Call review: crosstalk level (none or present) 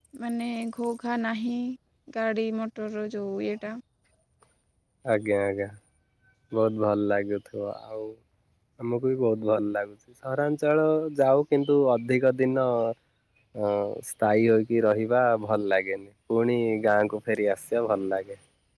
none